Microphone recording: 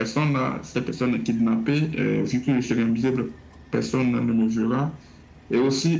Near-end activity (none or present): none